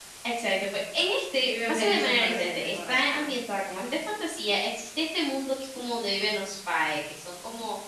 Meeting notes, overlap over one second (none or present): present